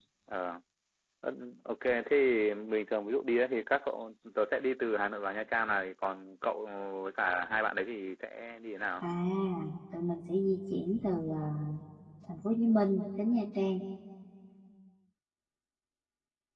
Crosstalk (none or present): none